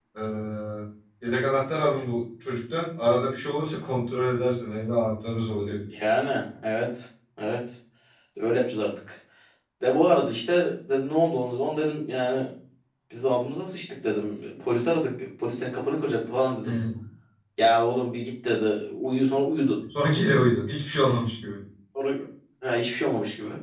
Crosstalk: none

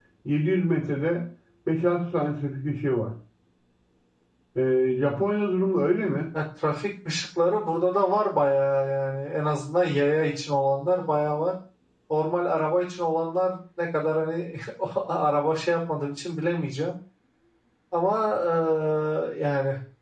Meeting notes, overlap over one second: none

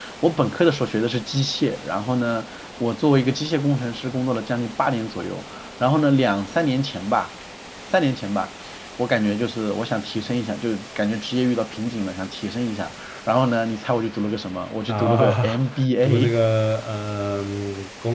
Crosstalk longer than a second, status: present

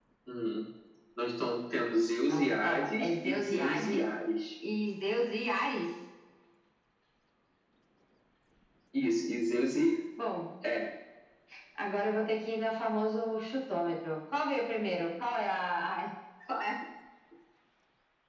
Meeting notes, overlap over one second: present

